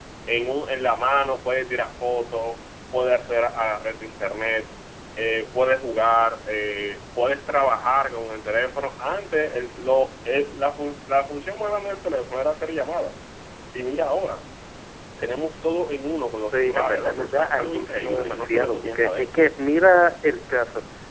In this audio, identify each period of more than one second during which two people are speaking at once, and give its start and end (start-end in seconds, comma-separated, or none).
16.5-19.4